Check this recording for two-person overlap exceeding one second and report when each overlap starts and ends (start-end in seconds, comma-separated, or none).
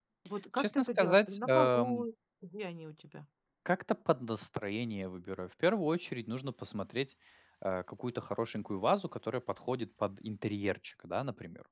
0.6-2.0